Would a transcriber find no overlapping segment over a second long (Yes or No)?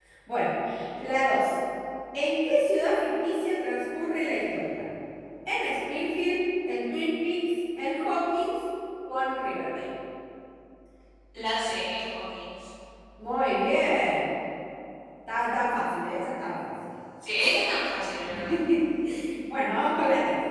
Yes